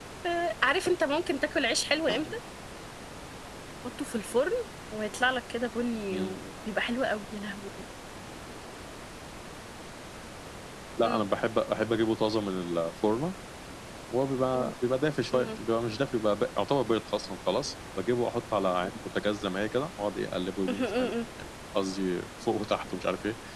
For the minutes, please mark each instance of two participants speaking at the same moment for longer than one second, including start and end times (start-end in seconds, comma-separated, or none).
none